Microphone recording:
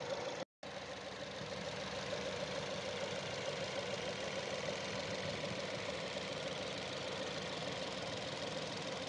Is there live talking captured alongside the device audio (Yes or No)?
No